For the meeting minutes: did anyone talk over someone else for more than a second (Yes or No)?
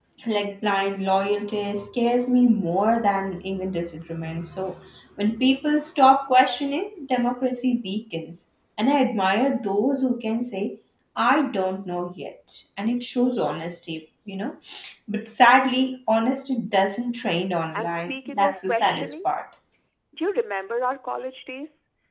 Yes